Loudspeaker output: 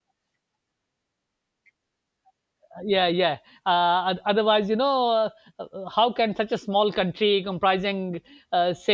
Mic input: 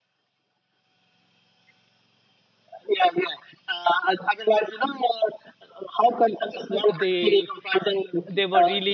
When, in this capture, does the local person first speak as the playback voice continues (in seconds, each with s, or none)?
6.4 s